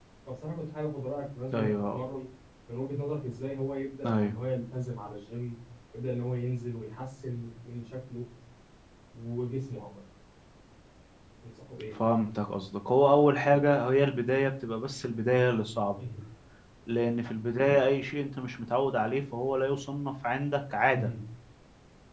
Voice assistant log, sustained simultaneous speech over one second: none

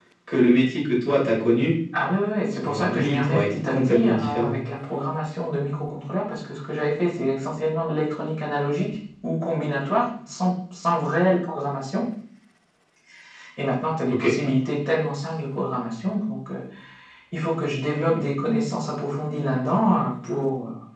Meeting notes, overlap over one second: present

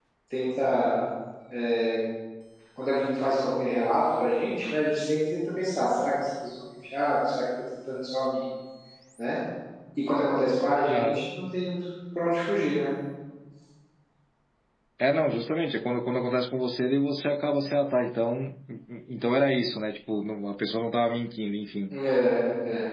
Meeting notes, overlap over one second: none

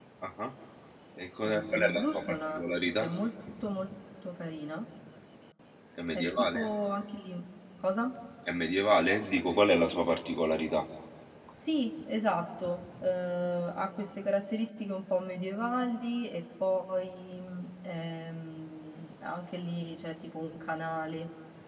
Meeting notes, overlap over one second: present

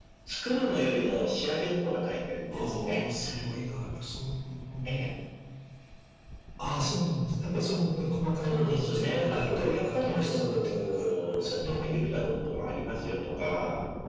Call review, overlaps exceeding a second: present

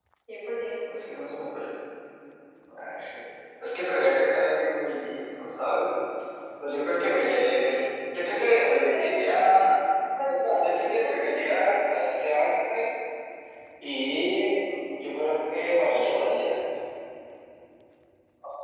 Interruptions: present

